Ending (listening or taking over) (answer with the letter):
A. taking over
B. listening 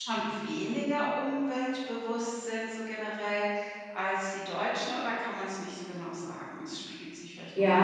A